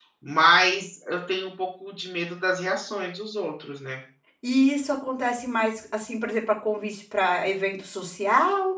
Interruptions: none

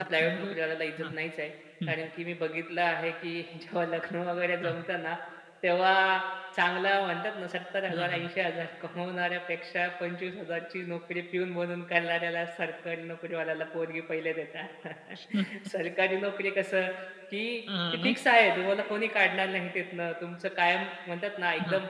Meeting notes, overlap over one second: none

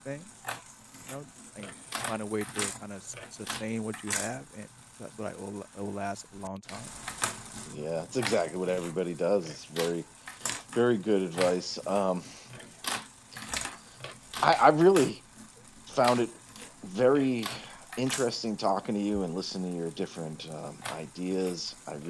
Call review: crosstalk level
none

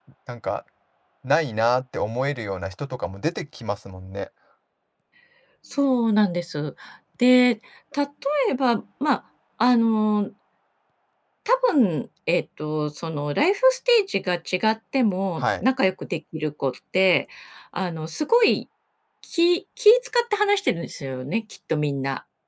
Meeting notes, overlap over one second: none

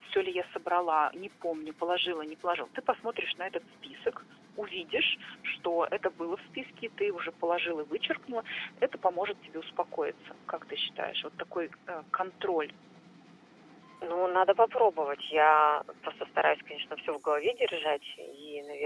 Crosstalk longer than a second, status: none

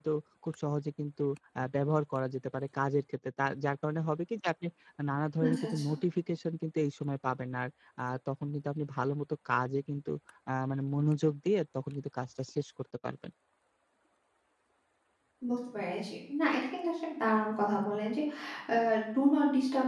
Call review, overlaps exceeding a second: none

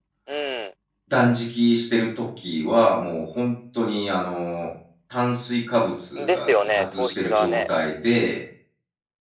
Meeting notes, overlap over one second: present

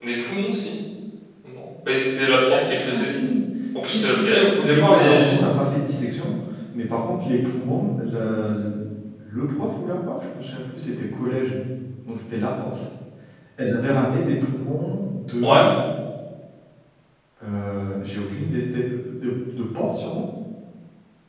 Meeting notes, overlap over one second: present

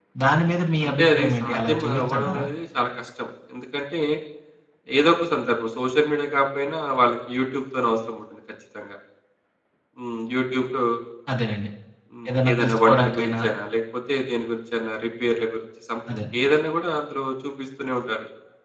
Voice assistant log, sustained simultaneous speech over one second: present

